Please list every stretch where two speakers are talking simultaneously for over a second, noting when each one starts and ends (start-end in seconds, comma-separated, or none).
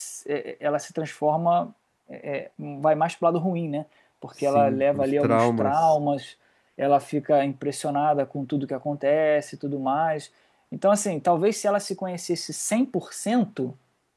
4.4-5.9